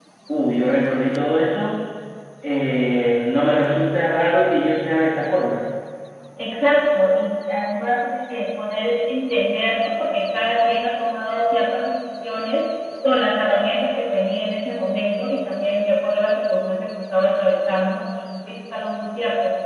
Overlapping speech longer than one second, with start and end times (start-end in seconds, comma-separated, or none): none